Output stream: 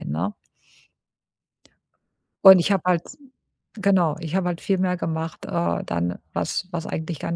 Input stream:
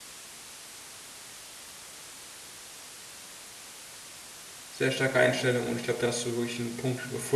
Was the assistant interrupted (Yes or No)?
Yes